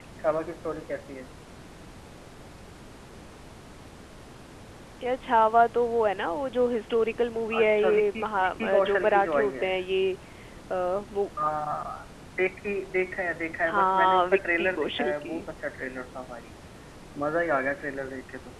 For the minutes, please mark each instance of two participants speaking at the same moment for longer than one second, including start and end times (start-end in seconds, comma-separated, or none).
7.6-9.7, 13.7-15.4